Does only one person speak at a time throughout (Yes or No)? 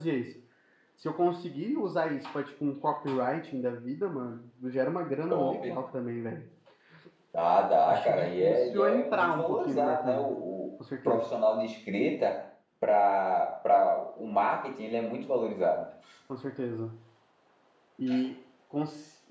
No